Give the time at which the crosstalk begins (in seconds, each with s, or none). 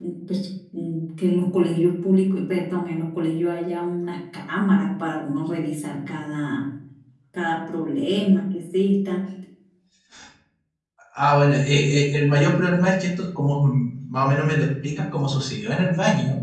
none